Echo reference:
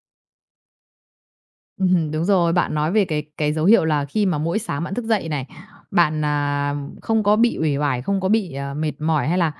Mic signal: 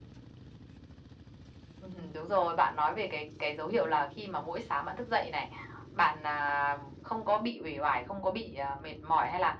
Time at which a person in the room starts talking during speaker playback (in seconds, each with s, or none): none